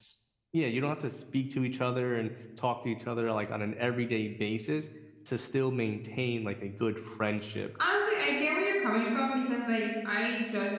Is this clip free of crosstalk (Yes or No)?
Yes